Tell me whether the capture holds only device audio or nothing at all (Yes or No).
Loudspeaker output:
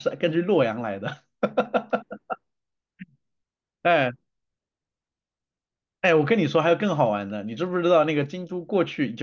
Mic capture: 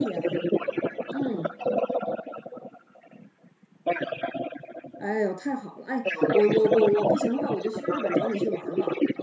No